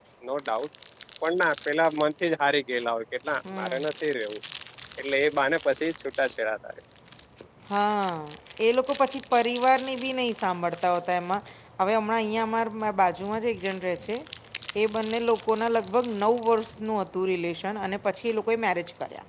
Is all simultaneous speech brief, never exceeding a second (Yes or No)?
Yes